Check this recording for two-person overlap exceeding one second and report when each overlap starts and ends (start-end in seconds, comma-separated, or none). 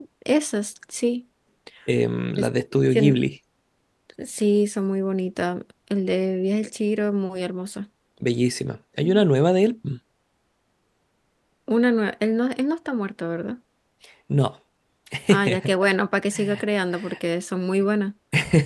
none